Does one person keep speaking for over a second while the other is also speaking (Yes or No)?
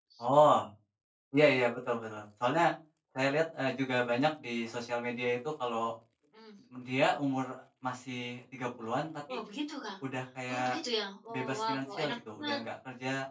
Yes